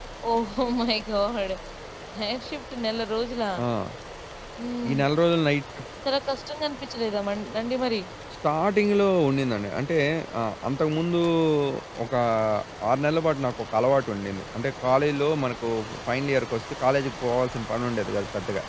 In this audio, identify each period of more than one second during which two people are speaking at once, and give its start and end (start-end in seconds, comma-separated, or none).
none